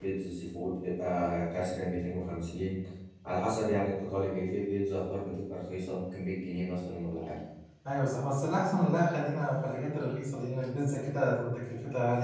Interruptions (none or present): none